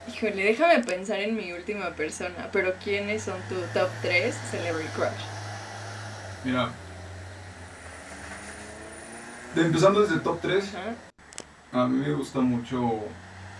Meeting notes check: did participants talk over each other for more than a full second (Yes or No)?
No